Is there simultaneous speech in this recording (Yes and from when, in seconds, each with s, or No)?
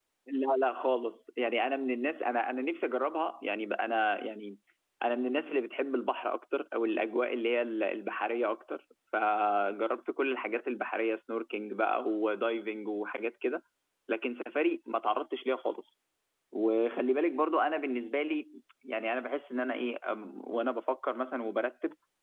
No